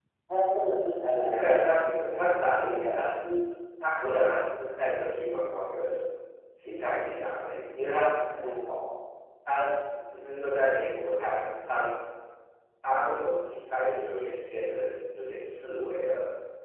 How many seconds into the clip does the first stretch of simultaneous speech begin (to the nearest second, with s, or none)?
1 s